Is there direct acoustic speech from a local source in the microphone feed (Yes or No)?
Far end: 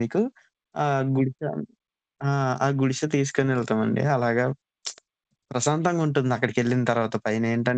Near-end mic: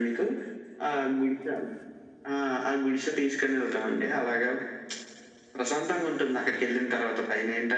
No